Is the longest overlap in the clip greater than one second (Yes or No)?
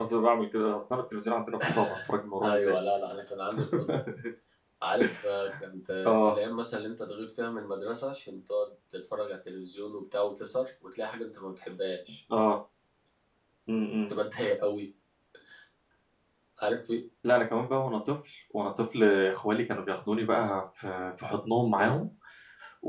No